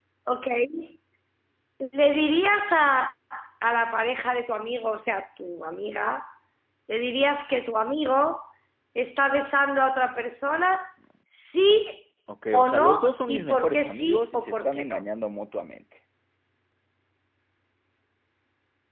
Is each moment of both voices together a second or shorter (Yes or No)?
No